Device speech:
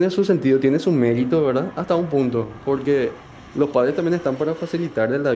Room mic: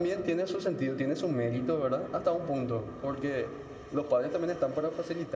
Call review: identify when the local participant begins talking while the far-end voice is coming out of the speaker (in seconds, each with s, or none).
none